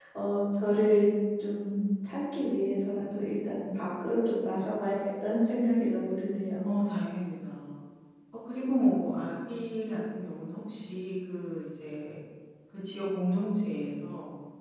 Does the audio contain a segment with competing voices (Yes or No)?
No